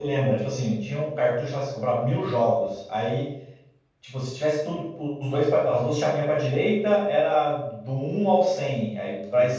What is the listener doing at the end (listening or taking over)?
listening